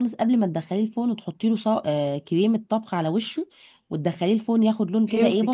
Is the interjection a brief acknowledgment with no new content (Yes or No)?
No